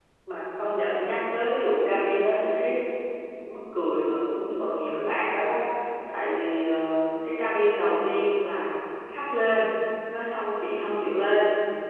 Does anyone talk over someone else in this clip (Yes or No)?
No